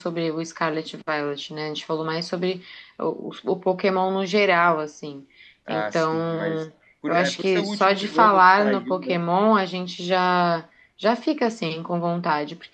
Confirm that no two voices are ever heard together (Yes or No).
No